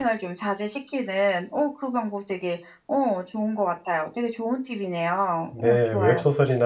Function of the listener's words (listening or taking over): taking over